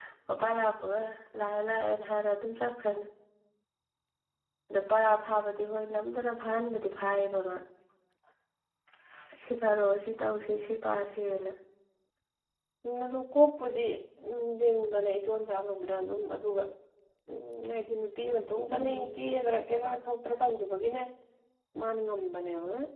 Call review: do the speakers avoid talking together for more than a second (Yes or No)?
Yes